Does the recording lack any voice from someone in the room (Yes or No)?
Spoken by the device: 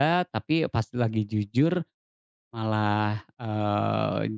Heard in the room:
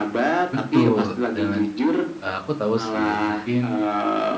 No